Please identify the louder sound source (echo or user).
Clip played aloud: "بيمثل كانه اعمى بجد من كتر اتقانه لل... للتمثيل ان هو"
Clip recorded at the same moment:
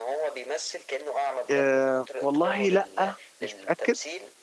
user